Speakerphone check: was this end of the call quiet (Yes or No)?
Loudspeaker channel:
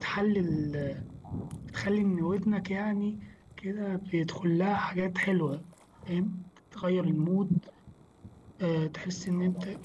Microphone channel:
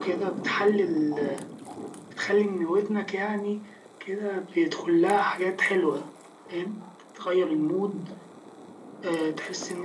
Yes